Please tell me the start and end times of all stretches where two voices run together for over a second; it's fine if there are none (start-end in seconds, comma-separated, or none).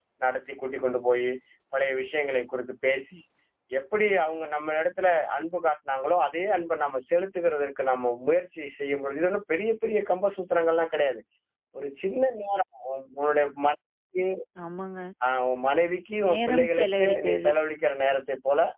16.3-17.5